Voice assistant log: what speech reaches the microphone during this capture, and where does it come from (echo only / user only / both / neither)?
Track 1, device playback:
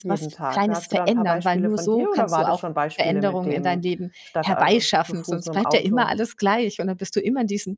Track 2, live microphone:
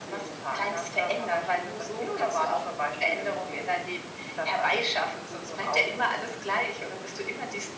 echo only